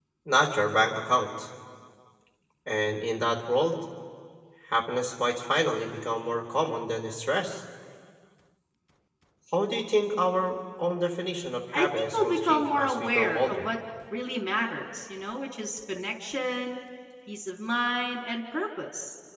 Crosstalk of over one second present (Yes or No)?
Yes